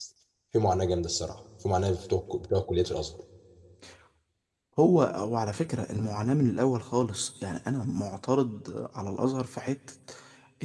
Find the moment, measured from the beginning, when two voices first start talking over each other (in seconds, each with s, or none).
none